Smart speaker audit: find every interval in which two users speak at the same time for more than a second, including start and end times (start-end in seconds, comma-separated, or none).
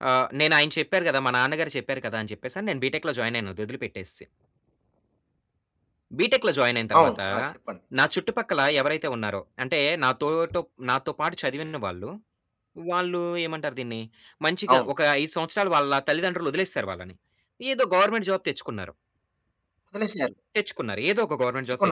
none